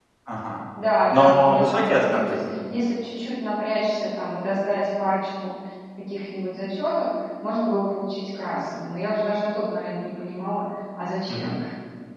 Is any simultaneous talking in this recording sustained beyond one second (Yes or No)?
Yes